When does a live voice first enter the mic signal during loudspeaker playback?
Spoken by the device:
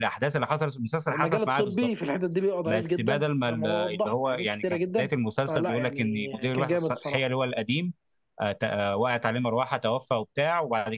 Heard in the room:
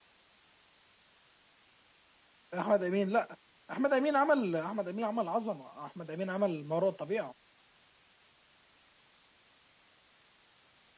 2.6 s

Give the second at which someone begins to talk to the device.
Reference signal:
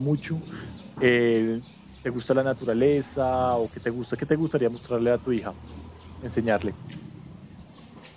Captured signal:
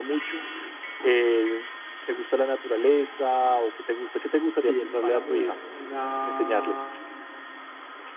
4.6 s

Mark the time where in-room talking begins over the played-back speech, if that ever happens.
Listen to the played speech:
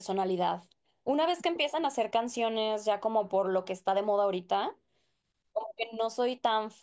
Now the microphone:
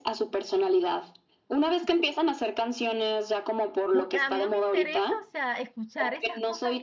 3.9 s

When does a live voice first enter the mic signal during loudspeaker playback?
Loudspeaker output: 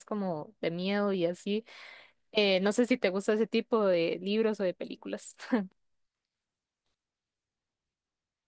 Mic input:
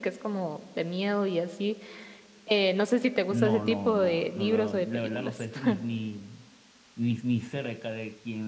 3.3 s

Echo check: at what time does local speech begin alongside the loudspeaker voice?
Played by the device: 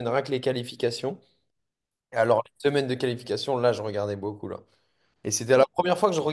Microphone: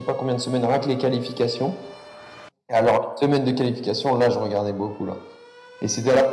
none

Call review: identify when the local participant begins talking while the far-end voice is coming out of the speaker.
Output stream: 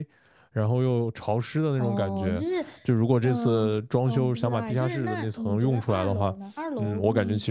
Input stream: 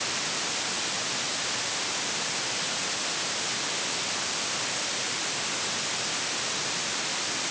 none

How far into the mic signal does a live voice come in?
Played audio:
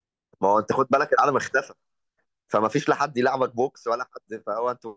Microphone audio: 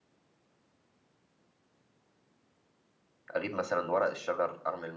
3.3 s

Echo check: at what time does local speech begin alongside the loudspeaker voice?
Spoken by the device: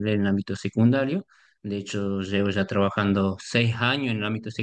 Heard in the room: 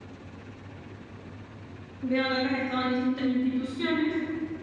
2.0 s

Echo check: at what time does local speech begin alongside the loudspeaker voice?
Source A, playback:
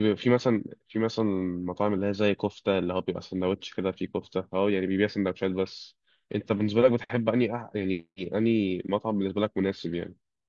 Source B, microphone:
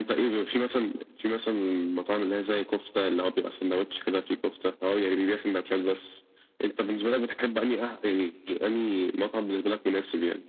none

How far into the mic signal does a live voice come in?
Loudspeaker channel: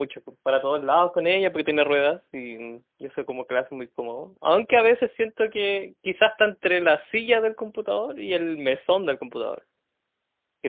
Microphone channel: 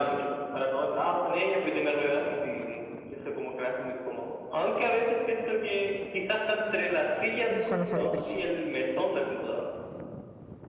7.5 s

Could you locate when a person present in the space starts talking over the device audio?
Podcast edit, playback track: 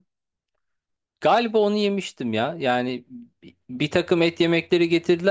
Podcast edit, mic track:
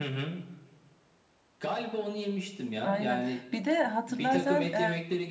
2.8 s

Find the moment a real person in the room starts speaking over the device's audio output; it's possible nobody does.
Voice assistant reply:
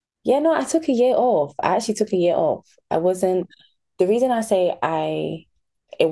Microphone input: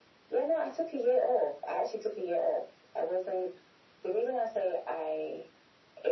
none

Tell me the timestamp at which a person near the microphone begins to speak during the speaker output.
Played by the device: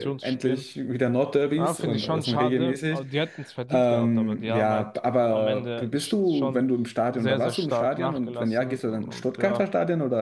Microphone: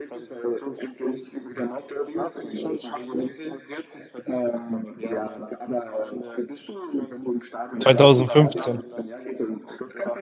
7.8 s

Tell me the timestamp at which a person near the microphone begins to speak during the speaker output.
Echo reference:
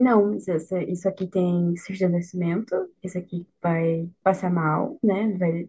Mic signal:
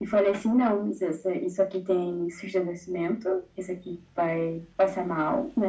none

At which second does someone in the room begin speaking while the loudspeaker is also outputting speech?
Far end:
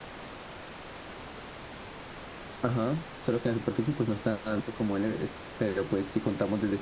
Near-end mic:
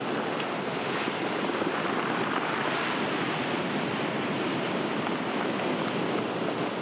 none

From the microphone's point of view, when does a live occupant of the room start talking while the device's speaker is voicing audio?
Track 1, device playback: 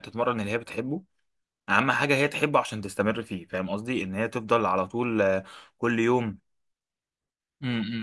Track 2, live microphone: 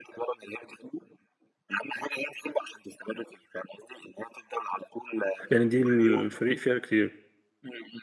5.5 s

